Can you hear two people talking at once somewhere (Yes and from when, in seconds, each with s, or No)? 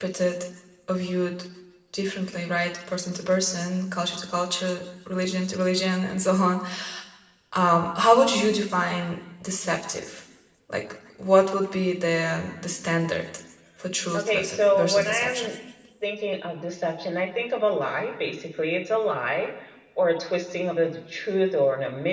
Yes, from 14.2 s